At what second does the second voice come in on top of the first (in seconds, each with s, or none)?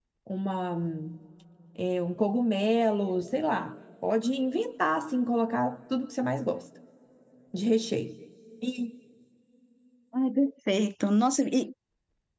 none